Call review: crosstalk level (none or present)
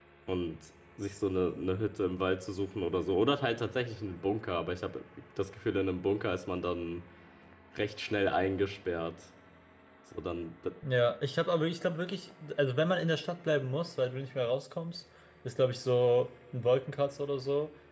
none